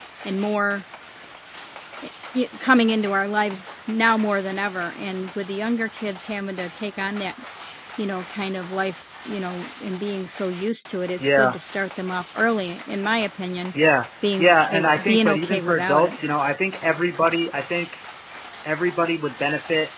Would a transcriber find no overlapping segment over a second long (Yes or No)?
No